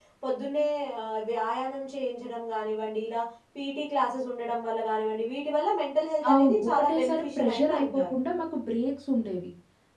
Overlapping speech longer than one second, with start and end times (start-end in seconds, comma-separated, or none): 6.3-8.0